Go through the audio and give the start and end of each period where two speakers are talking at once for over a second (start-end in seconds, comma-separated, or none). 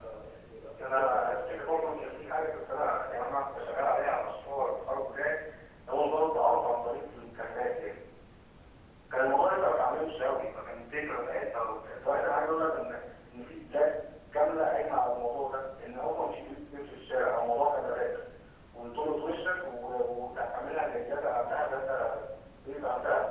0.8-2.6